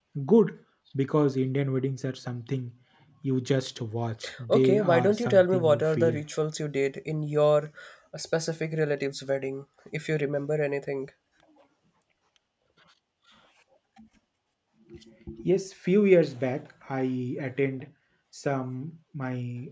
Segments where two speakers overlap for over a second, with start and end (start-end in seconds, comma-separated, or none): 4.5-6.2